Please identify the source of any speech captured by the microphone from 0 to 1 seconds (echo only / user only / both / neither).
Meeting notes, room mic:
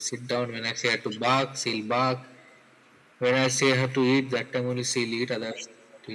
echo only